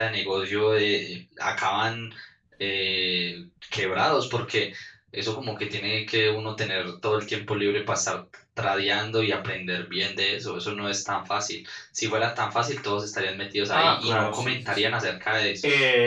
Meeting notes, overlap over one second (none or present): present